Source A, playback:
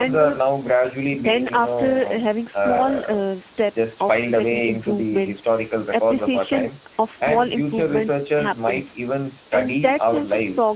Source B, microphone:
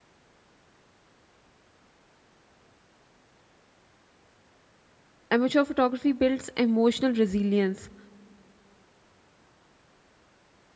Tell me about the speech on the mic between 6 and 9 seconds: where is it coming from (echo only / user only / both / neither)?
user only